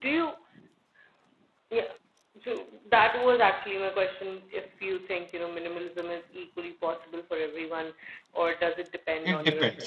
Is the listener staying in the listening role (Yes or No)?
No